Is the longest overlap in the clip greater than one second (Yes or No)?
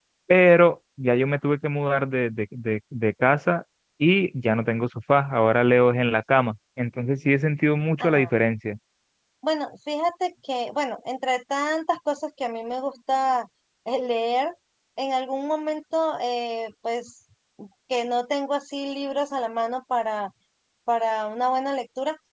No